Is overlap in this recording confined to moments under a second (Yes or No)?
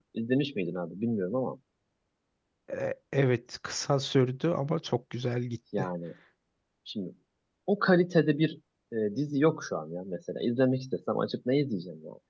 Yes